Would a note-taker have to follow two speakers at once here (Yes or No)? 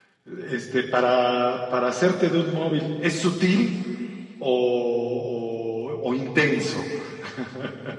No